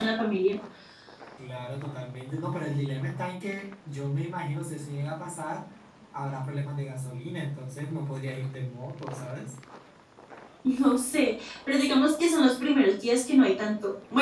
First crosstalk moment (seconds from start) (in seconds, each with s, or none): none